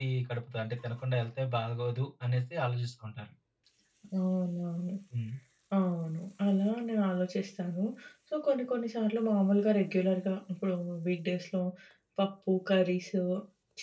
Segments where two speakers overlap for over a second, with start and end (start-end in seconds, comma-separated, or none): none